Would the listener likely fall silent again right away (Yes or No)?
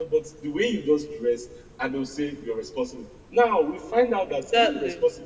Yes